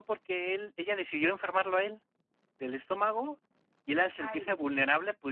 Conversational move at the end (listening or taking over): listening